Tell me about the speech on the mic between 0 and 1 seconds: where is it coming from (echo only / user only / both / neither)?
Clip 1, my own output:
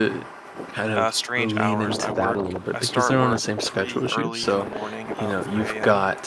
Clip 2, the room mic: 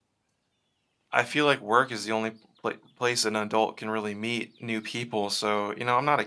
neither